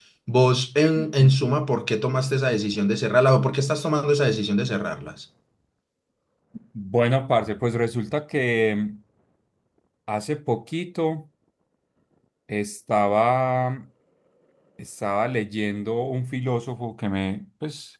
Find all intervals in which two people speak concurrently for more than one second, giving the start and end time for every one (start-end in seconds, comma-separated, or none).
none